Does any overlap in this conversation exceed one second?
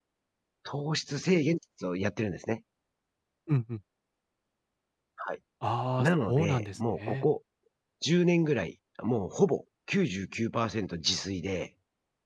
Yes, from 6.0 s

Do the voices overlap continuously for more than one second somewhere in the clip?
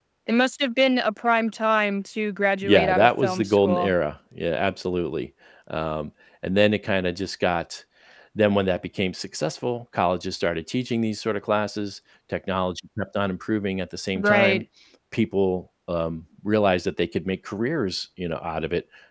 Yes, from 2.6 s

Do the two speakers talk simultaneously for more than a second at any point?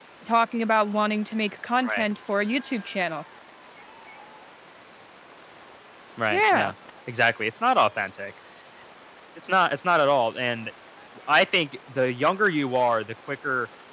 No

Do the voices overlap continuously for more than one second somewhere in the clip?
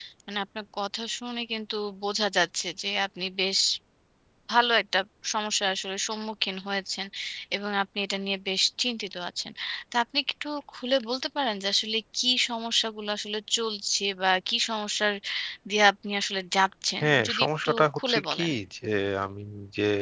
Yes, from 17.0 s

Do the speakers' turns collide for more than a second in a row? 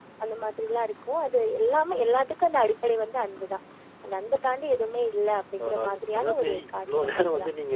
Yes, from 5.6 s

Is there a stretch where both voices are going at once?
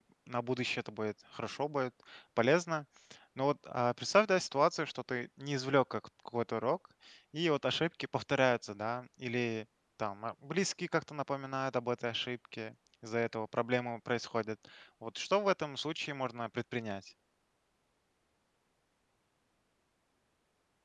No

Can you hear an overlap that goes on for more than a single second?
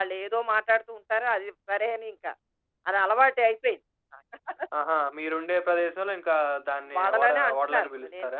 Yes, from 6.9 s

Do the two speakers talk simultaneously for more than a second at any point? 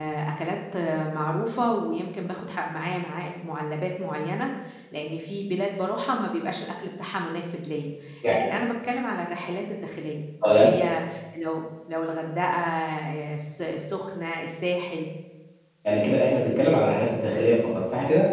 No

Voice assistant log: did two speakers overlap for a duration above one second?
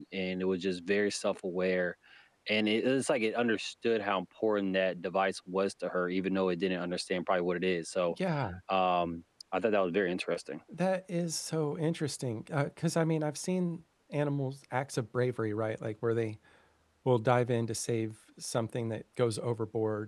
No

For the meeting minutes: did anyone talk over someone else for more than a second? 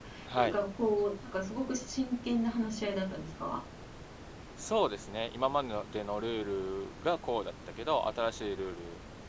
No

